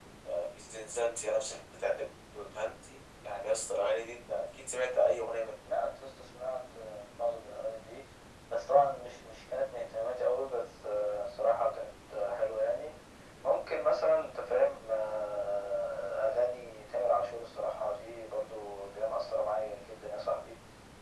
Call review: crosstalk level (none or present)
none